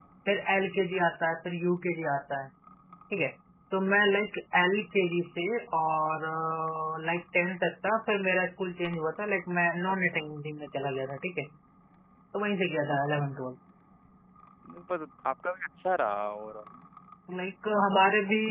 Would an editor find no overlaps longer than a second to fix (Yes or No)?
Yes